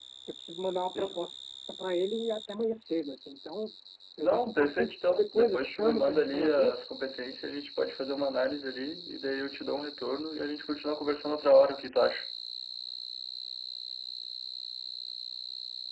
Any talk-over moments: Yes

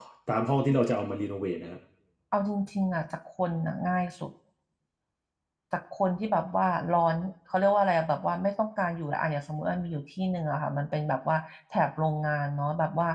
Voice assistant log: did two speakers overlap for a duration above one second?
No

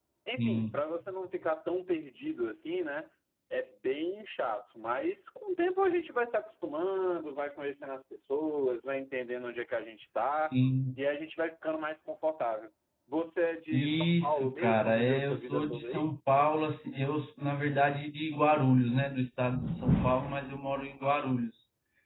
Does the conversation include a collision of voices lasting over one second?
Yes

